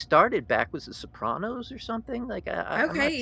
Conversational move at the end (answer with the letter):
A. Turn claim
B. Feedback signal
A